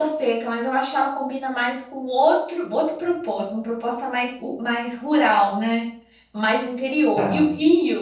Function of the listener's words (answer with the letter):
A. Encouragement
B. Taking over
A